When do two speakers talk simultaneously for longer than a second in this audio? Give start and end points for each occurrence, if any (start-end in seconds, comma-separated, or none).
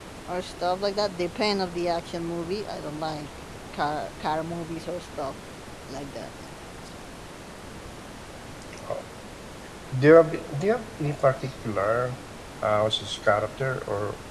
none